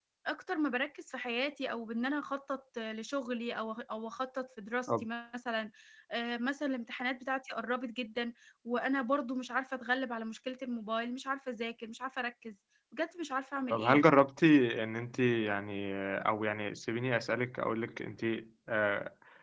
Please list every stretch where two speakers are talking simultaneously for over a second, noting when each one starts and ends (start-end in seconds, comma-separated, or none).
none